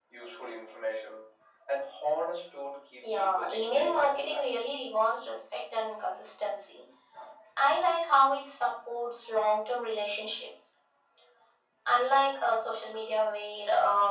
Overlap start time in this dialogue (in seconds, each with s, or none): 3.0 s